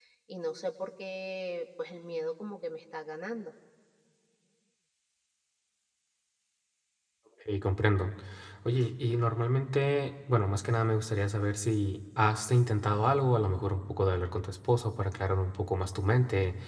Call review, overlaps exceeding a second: none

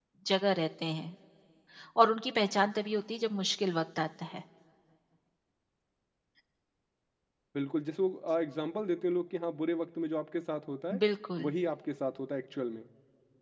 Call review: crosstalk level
none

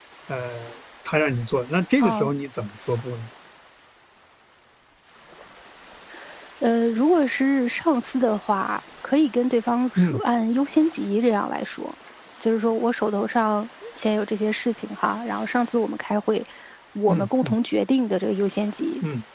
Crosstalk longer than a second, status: none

